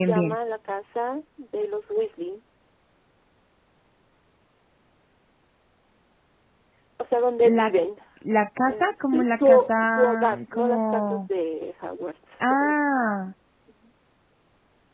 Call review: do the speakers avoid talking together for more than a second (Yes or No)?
No